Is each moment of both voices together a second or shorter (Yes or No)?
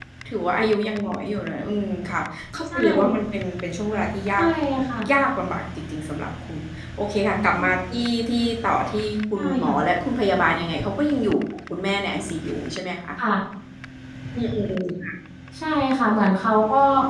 Yes